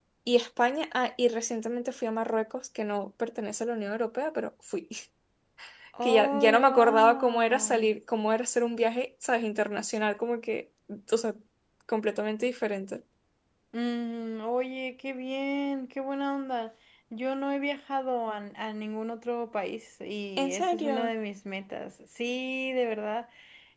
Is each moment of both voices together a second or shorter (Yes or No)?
No